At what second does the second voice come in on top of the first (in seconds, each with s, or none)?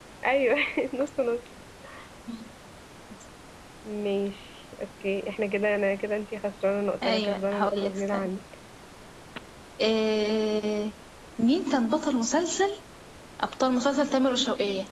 7.0 s